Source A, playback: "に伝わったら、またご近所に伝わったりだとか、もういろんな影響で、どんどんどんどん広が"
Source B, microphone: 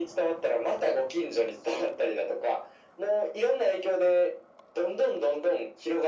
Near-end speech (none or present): none